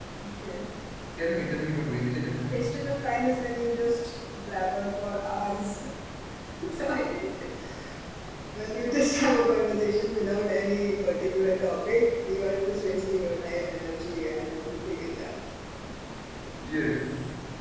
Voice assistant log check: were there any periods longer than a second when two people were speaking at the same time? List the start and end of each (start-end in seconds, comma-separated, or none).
none